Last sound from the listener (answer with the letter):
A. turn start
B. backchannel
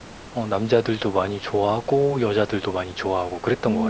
A